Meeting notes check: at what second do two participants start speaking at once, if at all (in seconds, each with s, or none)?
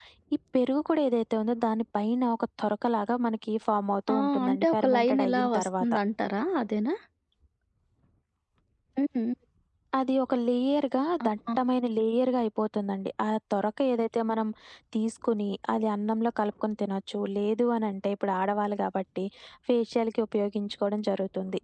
4.1 s